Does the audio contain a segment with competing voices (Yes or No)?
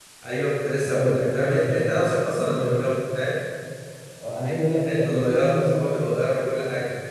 Yes